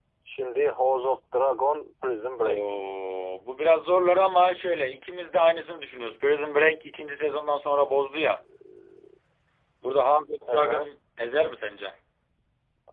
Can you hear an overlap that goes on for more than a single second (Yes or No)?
No